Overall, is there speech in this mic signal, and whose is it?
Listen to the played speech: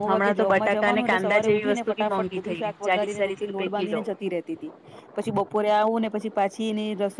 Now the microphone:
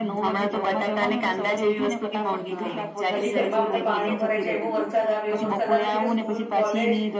both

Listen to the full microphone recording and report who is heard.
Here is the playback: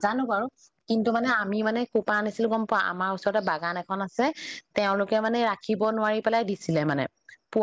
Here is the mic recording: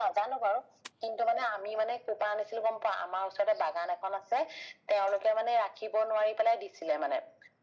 echo only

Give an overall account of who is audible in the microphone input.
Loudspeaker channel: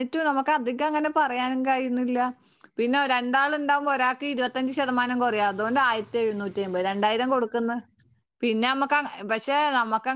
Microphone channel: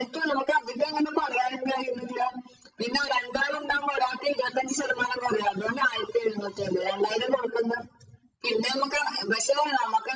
echo only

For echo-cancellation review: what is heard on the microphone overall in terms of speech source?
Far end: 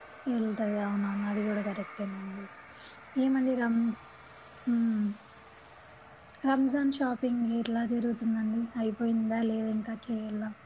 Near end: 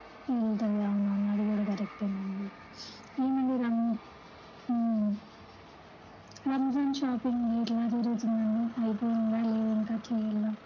echo only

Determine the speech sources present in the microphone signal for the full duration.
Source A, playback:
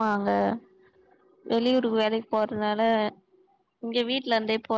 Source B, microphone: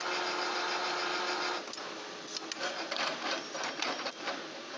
neither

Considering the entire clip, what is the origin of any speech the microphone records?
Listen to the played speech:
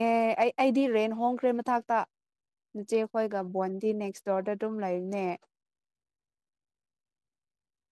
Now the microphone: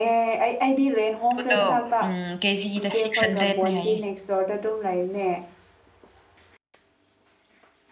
both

